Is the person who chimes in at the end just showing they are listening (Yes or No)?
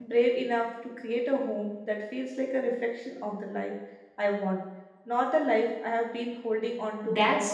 No